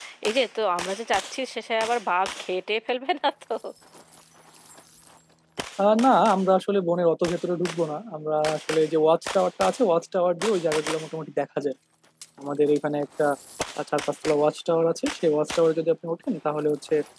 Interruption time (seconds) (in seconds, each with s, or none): none